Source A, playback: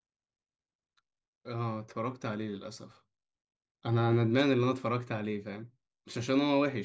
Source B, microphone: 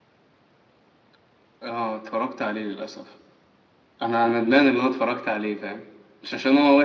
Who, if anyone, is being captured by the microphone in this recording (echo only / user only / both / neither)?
echo only